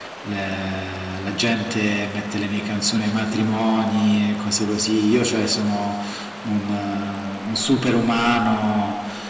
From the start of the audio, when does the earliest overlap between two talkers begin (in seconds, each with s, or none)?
none